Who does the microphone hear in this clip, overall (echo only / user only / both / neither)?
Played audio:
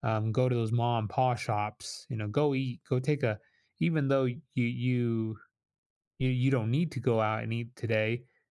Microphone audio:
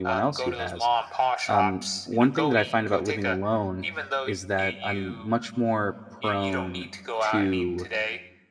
both